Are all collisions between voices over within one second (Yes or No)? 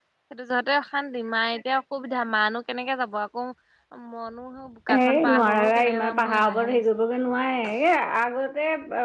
No